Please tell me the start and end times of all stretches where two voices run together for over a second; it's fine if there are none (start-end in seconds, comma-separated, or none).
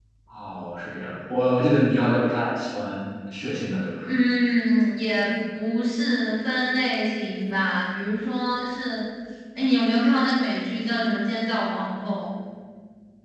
none